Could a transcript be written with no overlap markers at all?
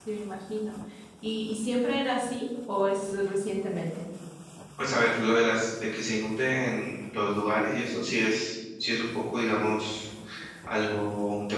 Yes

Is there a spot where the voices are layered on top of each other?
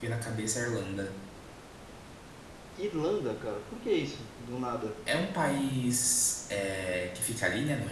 No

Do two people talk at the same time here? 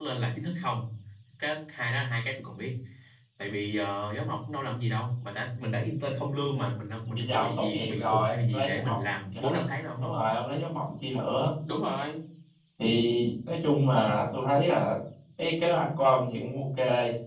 Yes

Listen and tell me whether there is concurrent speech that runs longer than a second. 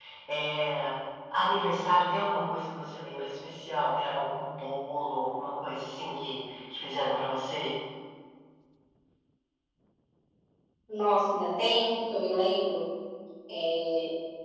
No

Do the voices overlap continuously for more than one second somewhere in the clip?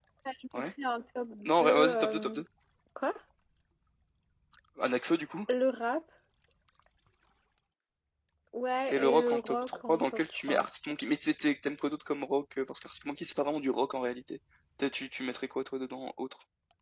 Yes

